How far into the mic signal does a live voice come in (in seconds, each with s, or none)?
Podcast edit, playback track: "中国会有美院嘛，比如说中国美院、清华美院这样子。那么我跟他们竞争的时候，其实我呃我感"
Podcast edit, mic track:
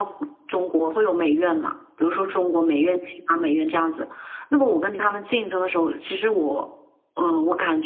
none